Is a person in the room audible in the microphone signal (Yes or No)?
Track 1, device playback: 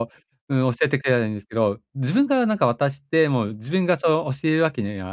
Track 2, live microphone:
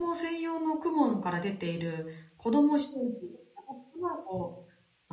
Yes